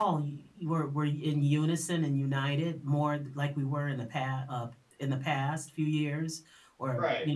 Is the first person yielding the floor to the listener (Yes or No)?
No